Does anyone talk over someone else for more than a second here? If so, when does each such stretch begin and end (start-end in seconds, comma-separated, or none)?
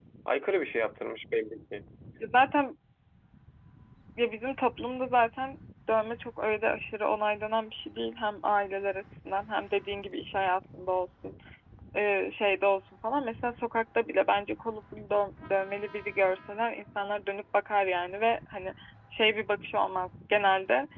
none